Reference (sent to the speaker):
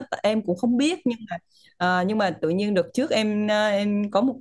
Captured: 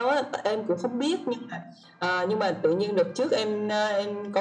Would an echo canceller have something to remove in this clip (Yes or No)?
Yes